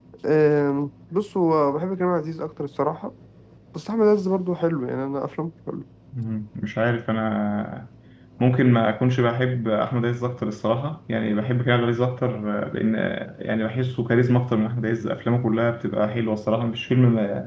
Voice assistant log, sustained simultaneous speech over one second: none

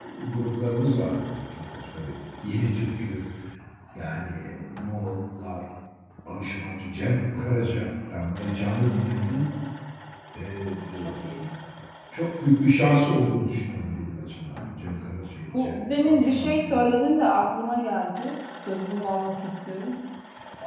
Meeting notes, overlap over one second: present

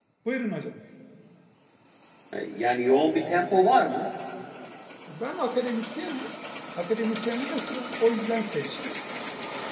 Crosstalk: none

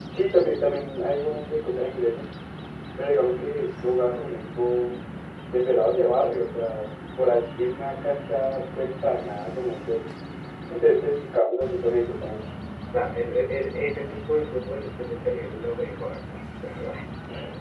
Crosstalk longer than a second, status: none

